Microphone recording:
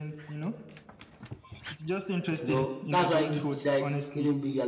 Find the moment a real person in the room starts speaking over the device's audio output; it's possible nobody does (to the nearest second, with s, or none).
2 s